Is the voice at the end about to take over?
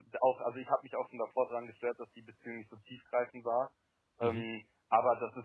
No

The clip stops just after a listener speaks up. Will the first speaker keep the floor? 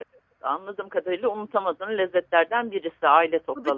No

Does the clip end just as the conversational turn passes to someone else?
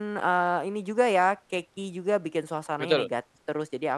No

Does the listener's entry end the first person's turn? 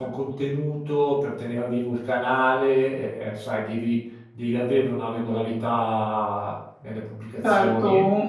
Yes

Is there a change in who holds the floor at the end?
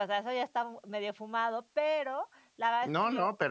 Yes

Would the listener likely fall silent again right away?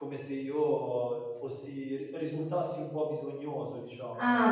No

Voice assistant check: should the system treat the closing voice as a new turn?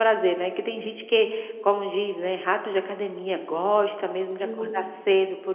No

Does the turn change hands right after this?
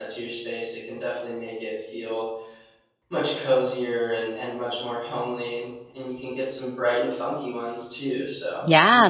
Yes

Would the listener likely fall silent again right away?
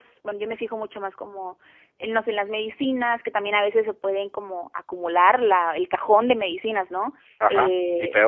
No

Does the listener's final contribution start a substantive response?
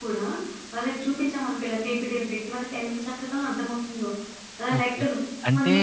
Yes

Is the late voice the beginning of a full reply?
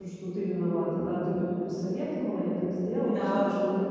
No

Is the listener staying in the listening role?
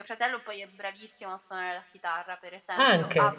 Yes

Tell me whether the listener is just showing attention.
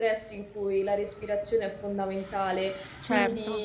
Yes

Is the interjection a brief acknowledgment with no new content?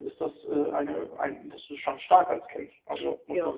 No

